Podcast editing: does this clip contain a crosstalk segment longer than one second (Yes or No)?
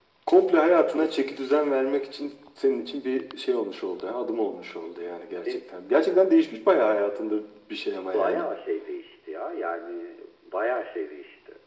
No